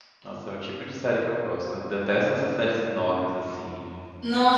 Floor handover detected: Yes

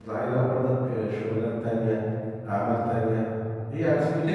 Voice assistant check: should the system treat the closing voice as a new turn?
Yes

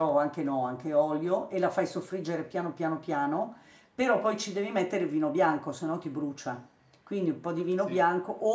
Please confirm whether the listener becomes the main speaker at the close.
No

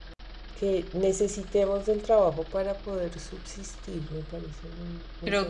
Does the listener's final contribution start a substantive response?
Yes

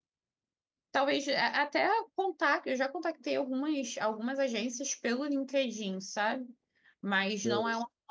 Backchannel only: Yes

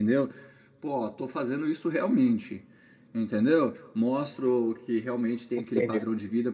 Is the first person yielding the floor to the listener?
No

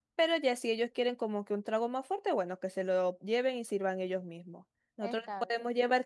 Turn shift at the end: No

